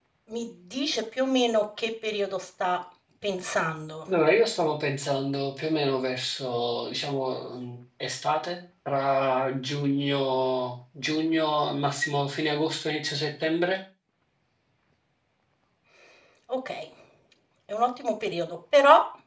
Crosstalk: none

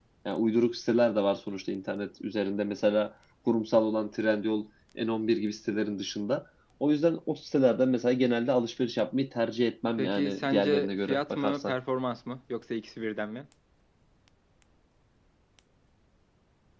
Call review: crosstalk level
present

